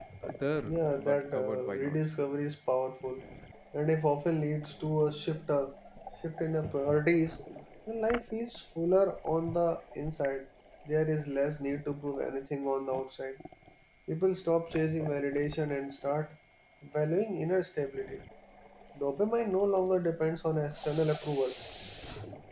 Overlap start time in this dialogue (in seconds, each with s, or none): 0.7 s